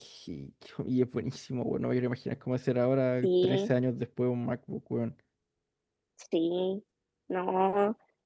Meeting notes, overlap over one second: none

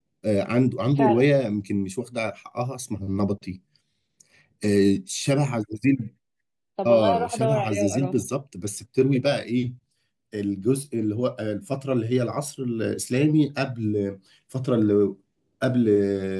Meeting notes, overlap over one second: present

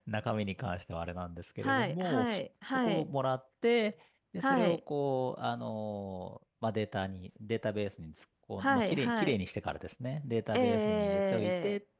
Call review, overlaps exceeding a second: present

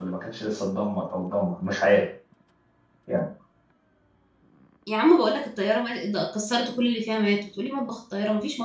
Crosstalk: none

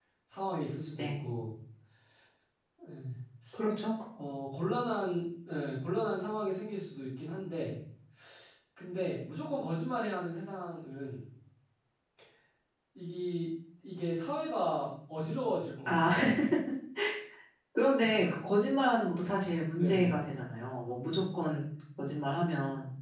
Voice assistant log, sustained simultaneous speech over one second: none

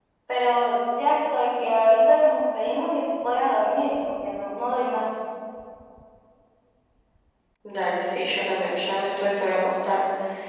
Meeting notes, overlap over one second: none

